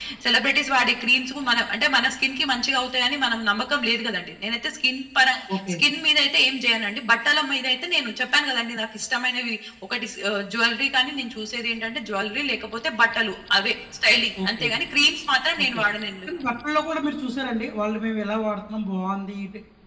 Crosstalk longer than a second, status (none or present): none